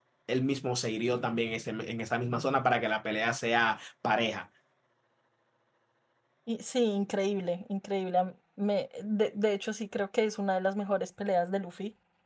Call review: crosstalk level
none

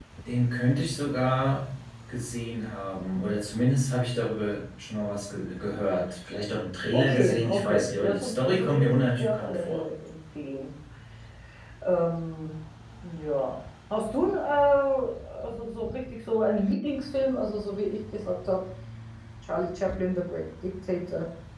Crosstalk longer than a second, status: present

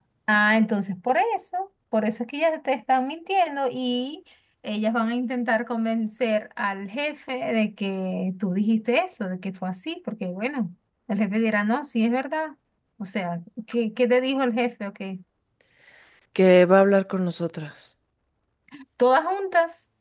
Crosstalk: none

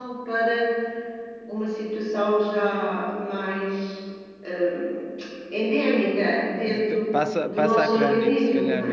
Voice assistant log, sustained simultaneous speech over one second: present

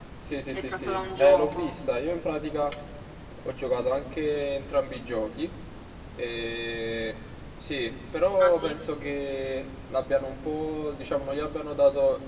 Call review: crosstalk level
present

